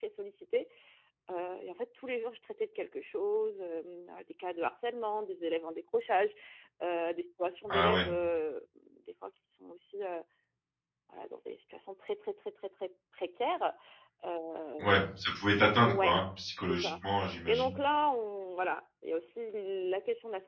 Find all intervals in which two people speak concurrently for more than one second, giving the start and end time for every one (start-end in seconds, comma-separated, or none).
none